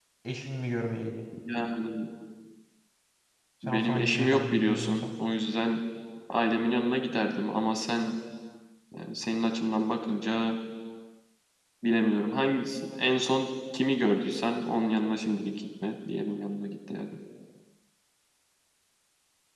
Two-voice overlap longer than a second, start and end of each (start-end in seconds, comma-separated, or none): 3.6-5.0